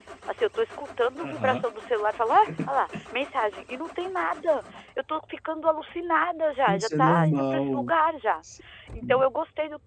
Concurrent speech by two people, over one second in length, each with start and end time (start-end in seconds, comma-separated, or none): 6.7-7.9